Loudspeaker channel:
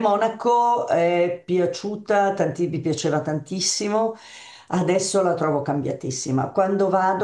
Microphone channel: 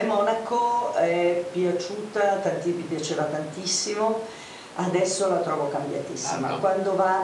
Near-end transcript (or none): bello.